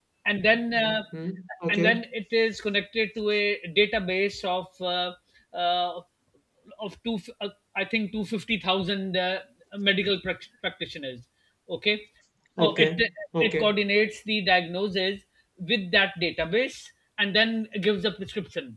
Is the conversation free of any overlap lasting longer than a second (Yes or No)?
Yes